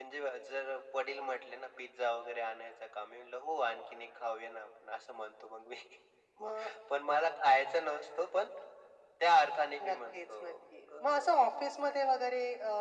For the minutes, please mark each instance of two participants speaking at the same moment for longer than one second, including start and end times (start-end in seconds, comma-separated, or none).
9.9-11.2